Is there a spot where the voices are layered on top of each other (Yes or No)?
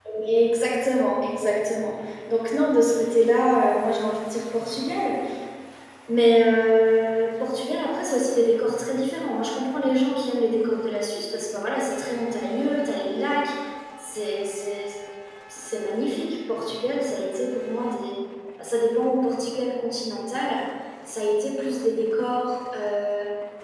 No